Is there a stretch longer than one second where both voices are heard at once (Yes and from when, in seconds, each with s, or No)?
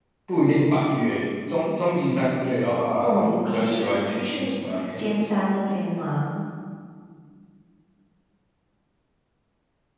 Yes, from 3.0 s